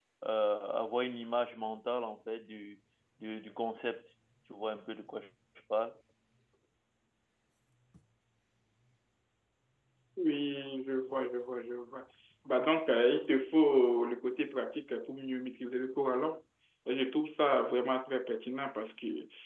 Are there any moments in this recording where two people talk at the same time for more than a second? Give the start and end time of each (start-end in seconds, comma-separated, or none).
none